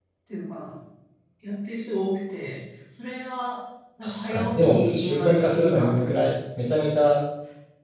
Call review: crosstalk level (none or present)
present